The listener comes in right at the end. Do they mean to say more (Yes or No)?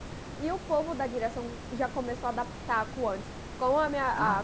No